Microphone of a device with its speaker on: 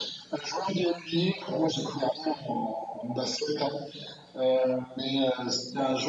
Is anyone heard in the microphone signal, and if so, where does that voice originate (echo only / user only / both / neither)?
echo only